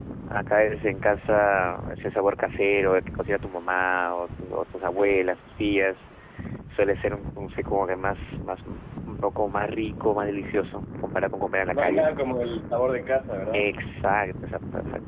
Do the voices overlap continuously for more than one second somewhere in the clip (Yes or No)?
No